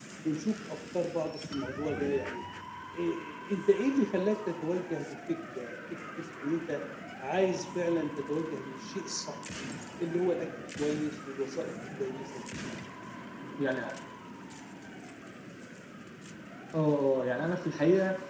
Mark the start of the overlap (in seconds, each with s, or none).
none